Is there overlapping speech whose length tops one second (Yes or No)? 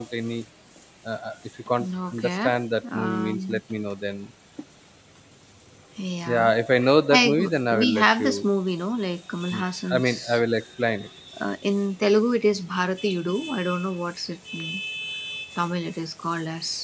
Yes